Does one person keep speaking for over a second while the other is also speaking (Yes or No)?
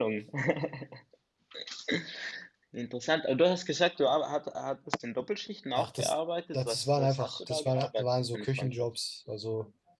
Yes